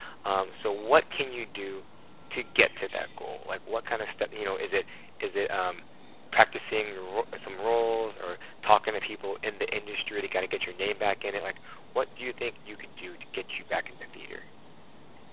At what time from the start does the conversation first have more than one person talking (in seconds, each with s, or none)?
none